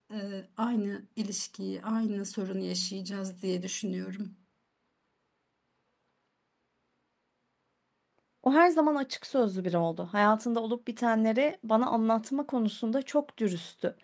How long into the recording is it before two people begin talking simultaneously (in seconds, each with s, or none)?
none